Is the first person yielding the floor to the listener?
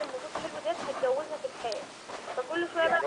Yes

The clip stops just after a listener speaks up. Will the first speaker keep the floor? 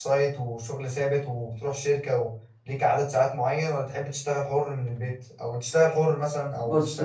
No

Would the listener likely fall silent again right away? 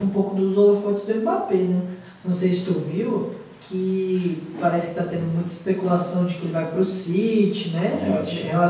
No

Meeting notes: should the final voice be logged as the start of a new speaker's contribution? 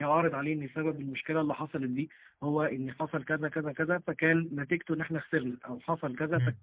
Yes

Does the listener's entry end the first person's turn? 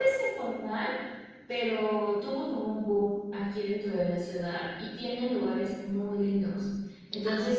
No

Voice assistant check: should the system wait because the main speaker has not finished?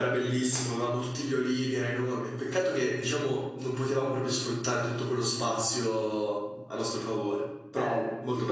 No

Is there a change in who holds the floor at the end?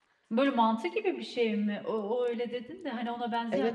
Yes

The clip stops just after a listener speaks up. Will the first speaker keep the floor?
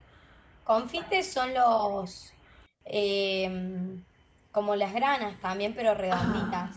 No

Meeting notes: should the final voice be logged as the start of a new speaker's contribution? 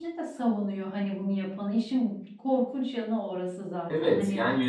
Yes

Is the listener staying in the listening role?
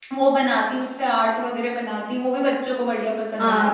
No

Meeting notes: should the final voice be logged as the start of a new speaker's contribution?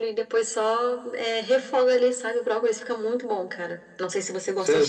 Yes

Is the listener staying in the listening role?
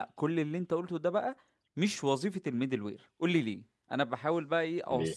Yes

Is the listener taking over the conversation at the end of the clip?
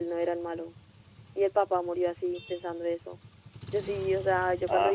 No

